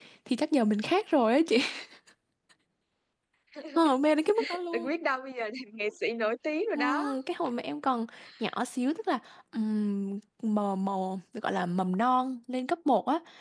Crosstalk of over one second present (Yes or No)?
No